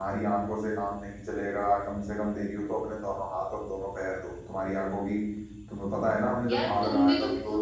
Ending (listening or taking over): taking over